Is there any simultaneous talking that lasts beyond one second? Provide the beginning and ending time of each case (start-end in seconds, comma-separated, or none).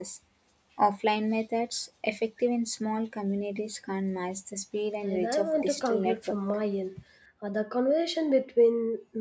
5.0-6.4